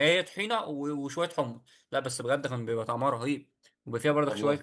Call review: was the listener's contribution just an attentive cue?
Yes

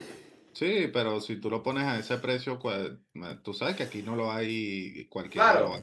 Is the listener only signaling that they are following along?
No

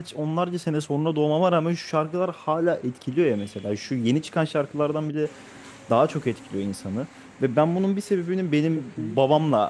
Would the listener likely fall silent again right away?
Yes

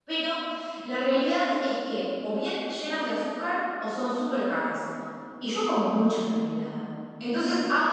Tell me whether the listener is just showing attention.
Yes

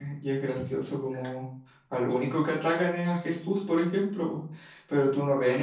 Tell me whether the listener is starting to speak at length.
No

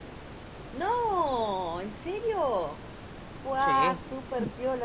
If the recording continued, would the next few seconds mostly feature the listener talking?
No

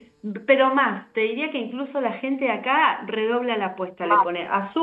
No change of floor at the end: Yes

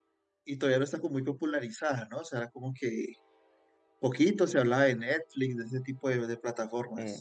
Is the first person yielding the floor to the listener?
Yes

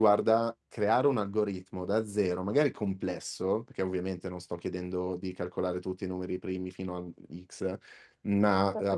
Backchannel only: Yes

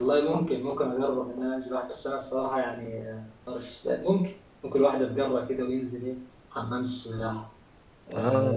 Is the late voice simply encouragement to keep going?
Yes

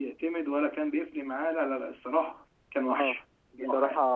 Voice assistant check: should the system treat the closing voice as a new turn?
Yes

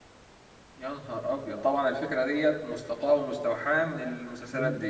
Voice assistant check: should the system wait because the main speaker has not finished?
No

